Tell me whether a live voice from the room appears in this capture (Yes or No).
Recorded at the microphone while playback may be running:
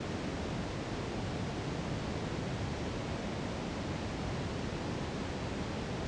No